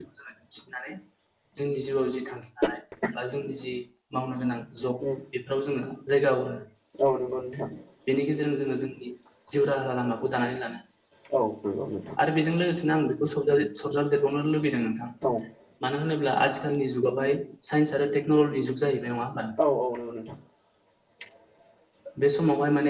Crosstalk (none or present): none